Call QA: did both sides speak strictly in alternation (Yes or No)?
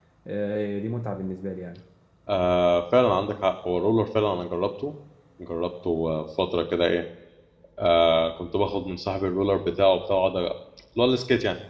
Yes